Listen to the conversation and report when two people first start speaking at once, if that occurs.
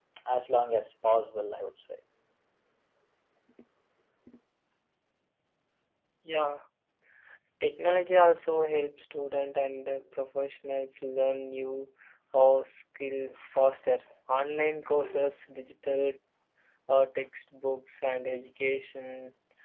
none

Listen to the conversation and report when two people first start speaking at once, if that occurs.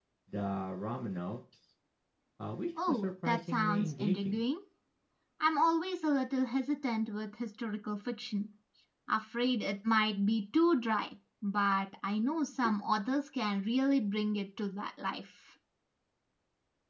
2.9 s

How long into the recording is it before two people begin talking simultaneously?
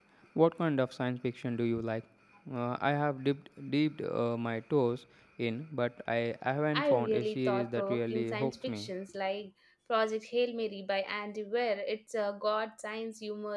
6.7 s

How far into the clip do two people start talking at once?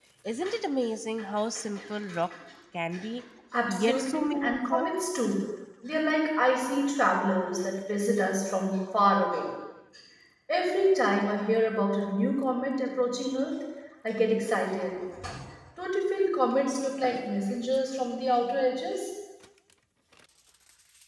3.7 s

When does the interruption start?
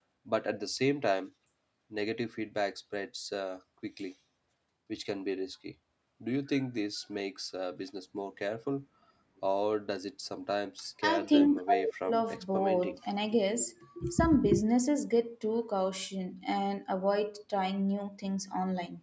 11.0 s

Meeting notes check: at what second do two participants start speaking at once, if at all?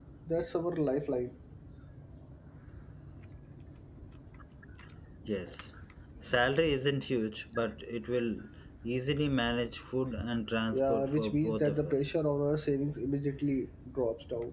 10.7 s

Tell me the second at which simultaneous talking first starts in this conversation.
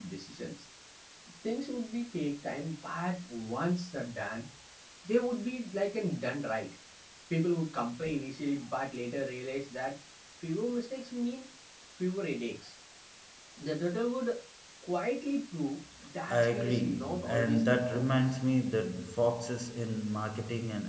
16.3 s

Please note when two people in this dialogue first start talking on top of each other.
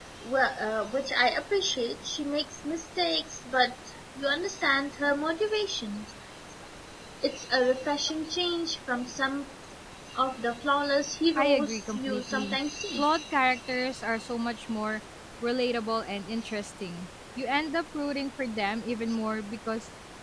11.4 s

